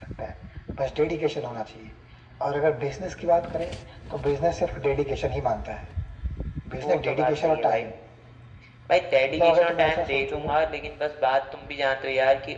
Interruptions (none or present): present